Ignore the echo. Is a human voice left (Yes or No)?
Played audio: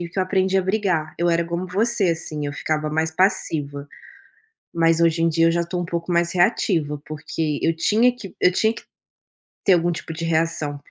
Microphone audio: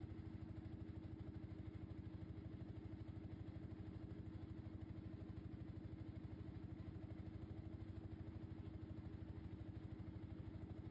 No